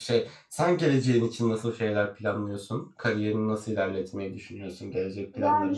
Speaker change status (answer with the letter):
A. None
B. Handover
B